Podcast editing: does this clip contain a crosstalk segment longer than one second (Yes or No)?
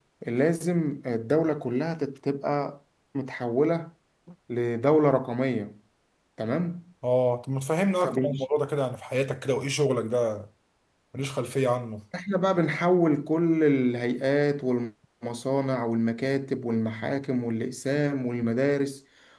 No